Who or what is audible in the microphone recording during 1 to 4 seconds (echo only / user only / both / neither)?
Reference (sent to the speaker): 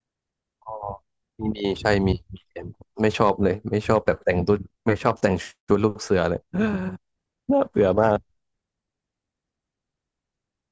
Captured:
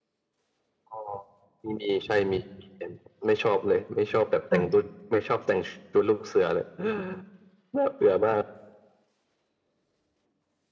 echo only